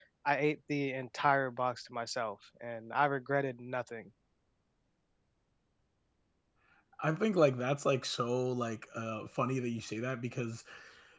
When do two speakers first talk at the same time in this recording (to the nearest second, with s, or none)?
none